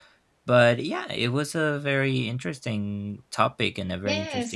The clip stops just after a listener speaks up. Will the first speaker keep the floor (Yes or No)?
No